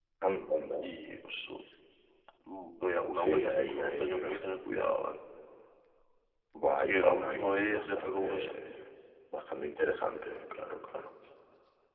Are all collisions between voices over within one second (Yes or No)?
No